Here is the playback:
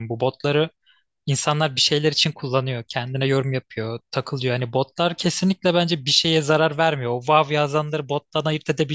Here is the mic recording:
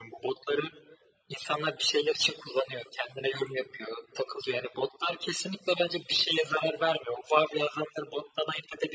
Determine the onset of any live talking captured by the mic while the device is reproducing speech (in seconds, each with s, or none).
none